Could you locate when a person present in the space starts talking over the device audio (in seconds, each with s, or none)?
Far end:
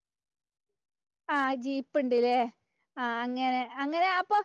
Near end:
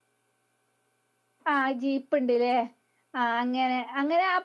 none